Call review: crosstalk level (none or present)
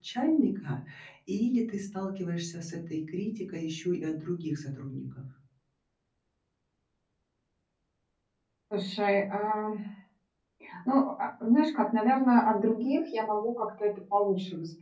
none